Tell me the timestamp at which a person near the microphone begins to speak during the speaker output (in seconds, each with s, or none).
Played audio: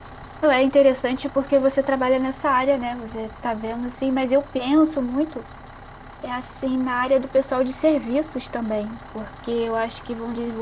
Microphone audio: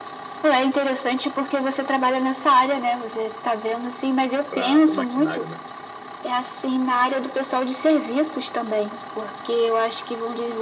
4.5 s